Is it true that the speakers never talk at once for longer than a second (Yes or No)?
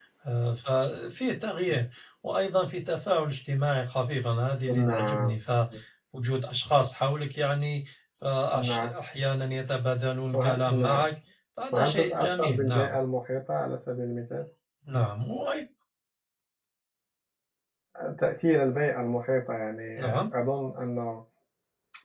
No